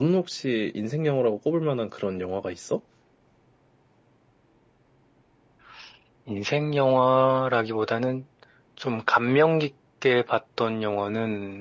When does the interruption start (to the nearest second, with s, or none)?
none